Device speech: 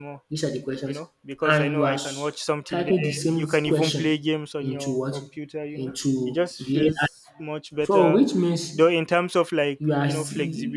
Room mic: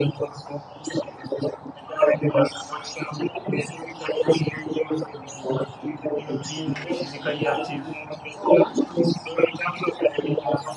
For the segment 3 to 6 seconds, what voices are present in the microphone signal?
echo only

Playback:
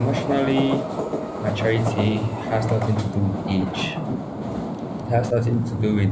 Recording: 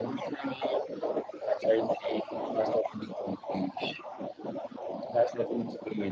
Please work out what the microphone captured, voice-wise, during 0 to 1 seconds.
echo only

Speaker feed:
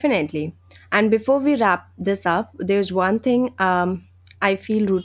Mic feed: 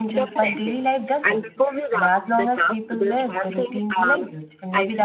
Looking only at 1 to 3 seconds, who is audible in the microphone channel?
both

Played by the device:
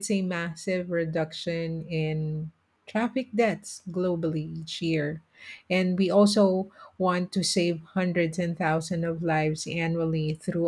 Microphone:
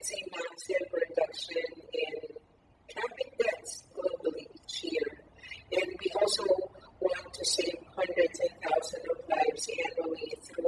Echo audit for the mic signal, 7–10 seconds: echo only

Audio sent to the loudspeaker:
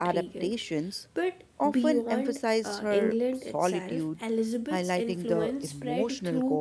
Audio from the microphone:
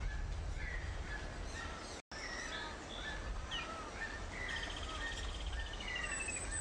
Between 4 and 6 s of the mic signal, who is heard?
neither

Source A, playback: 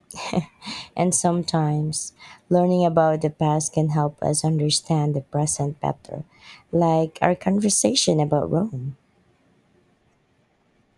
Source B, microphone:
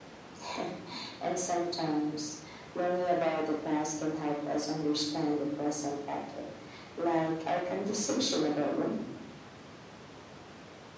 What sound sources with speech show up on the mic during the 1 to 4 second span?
echo only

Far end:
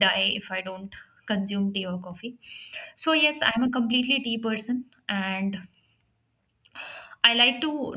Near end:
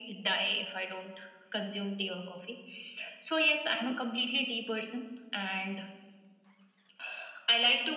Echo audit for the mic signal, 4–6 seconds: echo only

